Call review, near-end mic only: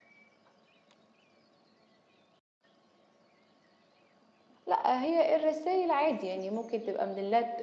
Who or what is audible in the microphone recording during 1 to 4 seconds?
neither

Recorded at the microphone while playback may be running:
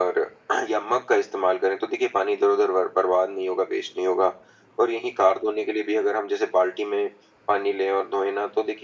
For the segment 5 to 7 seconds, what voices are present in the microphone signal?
echo only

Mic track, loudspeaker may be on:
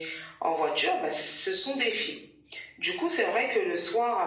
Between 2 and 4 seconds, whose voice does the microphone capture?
echo only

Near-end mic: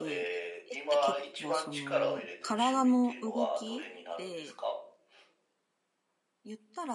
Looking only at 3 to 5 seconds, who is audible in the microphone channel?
both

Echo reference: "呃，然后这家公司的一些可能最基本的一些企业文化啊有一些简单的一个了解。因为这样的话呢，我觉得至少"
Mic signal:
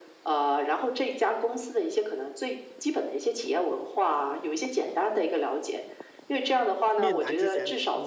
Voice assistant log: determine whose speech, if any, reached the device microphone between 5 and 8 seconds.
both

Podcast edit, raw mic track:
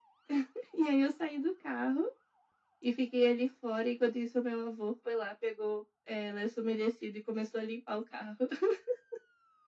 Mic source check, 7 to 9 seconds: echo only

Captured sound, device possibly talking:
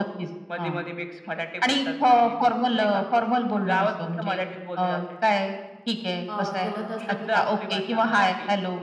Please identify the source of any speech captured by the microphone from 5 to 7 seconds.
both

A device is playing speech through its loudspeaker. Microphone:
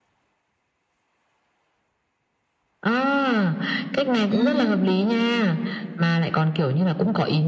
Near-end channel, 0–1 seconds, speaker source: neither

